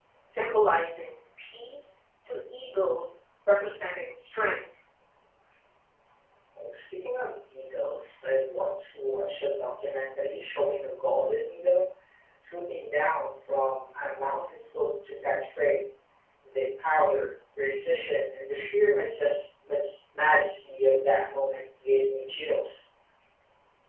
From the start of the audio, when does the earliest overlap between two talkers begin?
none

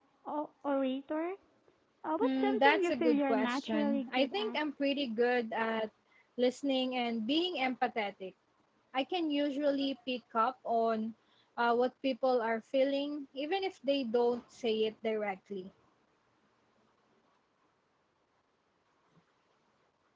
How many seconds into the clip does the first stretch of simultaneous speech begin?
2.2 s

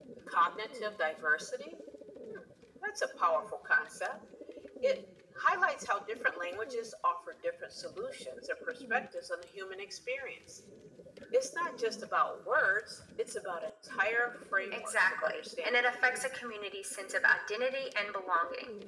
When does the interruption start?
14.7 s

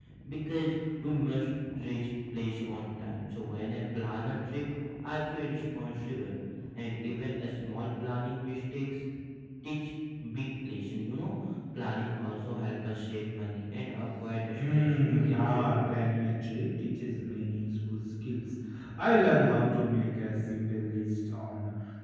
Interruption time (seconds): 14.6 s

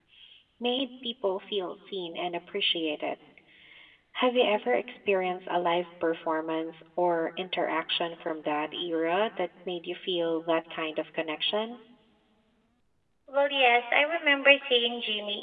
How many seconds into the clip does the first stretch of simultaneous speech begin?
none

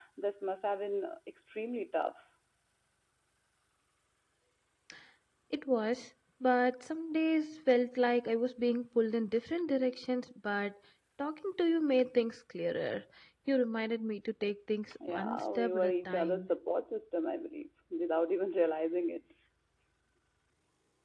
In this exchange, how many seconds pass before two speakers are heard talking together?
15.0 s

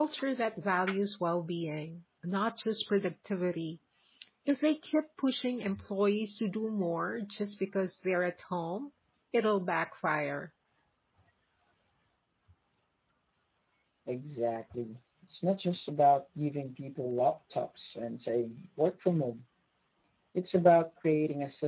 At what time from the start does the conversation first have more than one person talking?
none

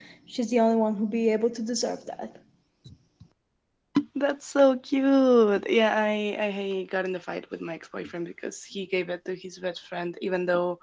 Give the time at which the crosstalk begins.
none

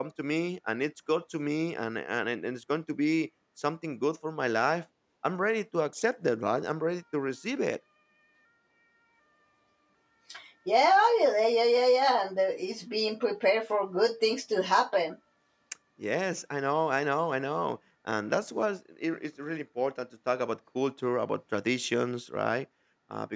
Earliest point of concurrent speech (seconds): none

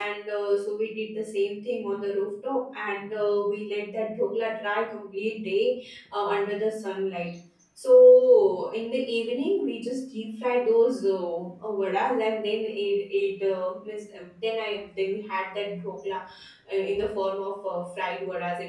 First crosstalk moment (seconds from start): none

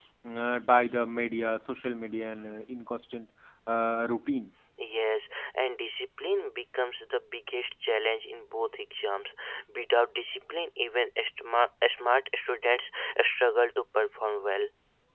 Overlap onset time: none

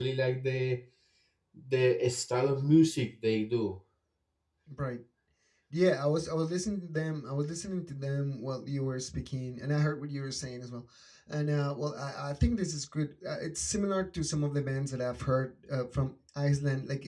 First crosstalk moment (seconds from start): none

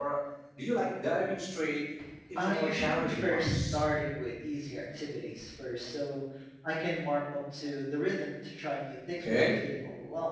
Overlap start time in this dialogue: 2.4 s

